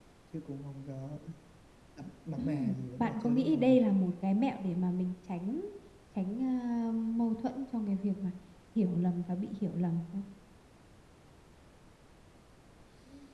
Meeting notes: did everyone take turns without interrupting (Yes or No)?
No